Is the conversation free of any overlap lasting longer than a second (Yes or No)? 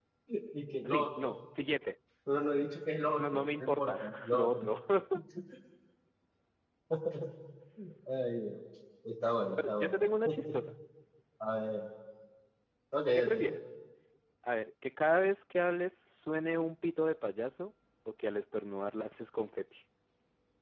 No